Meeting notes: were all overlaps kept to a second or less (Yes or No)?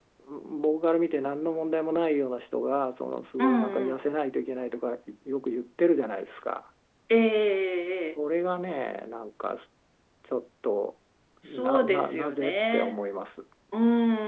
No